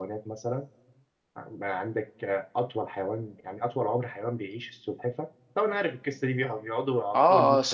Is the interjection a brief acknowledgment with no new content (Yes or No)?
No